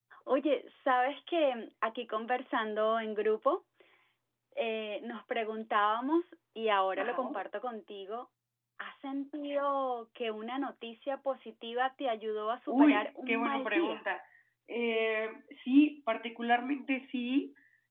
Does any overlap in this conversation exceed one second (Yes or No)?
Yes